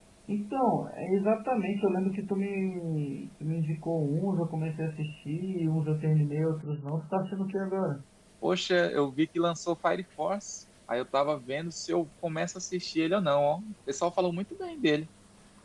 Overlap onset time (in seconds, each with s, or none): none